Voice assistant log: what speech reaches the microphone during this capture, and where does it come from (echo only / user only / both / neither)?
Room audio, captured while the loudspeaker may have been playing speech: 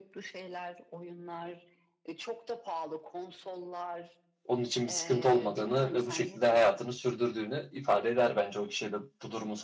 both